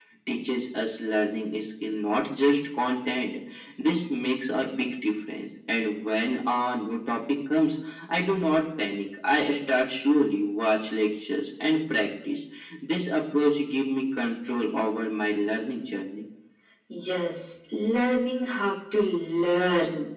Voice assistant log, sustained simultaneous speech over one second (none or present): none